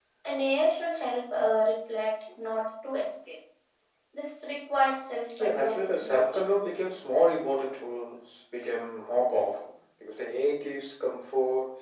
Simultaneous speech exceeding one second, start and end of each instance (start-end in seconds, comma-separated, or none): 5.4-6.8